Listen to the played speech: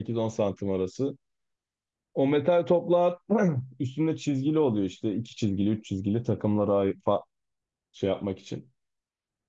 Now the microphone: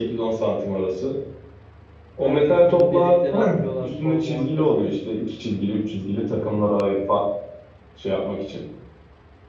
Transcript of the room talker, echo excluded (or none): Ha şu topu deliklere atıyorlar, puan muan kazanıyorsun.